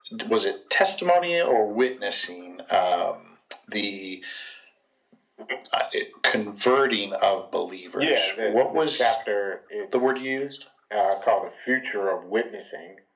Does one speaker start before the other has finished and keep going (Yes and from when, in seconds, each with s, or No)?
Yes, from 8.0 s